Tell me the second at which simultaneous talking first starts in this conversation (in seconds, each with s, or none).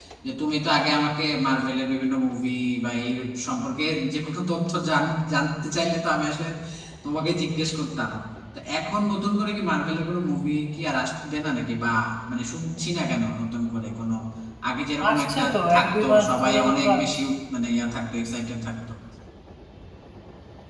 15.1 s